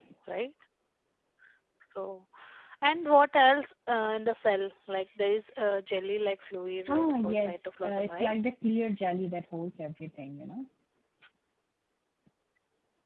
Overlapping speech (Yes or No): Yes